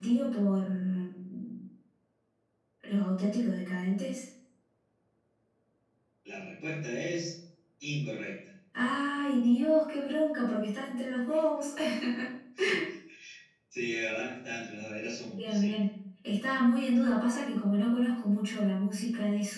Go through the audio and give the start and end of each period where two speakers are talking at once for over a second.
none

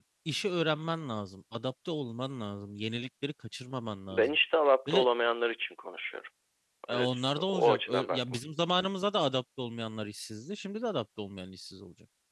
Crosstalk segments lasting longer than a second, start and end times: 6.9-8.4

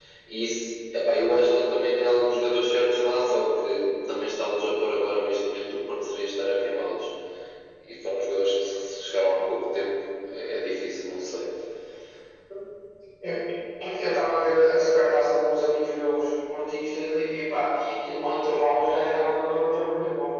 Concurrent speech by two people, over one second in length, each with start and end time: none

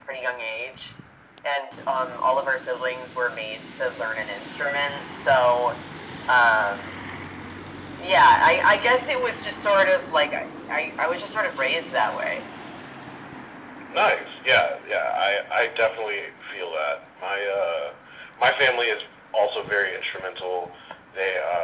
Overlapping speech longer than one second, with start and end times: none

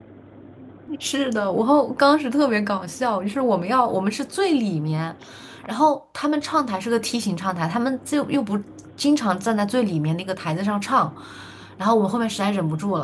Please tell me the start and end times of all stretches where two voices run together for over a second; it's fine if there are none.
none

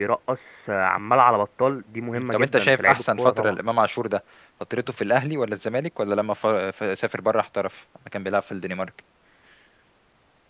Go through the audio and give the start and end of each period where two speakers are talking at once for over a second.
2.1-3.5

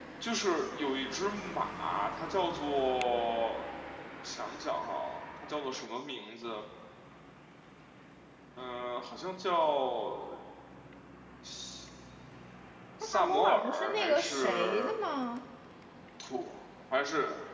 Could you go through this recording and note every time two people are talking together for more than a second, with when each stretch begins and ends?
13.1-14.9

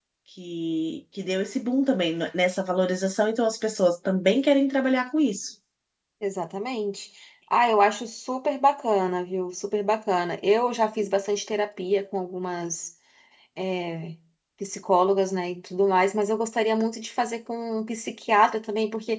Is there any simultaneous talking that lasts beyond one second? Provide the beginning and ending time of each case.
none

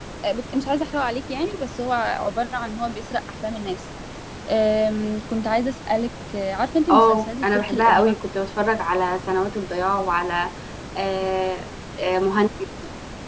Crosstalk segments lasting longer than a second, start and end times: 6.9-8.2

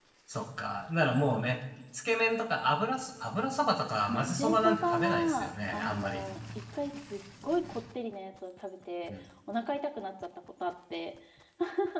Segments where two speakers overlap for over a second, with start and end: 4.1-6.2

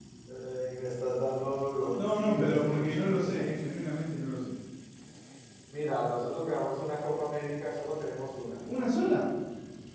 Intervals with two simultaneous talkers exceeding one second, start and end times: 1.9-3.6

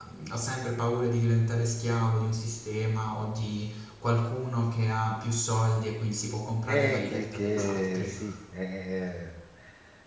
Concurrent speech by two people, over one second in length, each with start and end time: 6.7-8.2

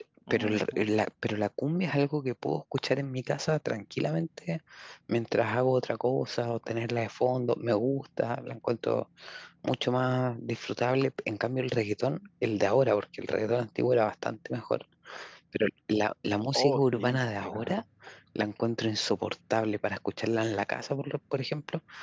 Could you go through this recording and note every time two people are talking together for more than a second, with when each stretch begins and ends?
16.5-17.8

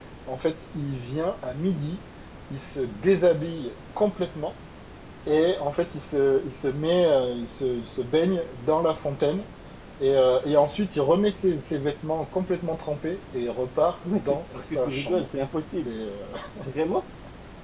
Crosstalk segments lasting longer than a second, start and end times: 14.0-15.2

